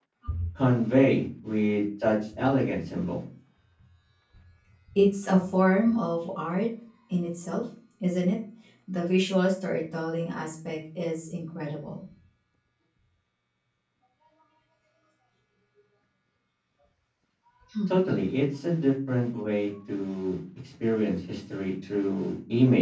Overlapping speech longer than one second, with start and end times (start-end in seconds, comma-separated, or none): none